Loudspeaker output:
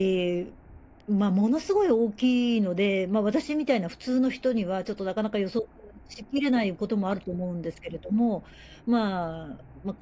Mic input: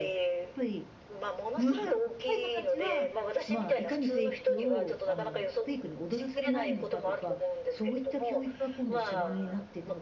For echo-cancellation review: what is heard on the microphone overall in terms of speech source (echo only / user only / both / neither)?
both